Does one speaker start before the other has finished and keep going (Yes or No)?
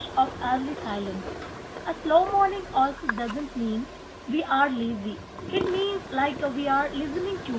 No